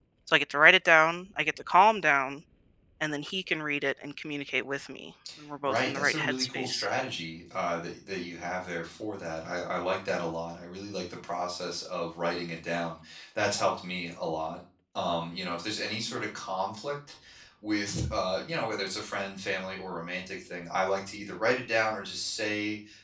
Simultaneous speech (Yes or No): Yes